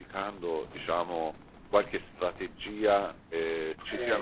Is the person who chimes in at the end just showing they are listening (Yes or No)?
Yes